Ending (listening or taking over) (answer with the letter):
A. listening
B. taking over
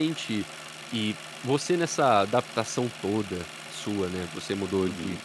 A